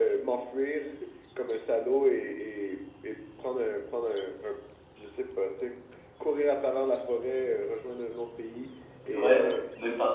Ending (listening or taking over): taking over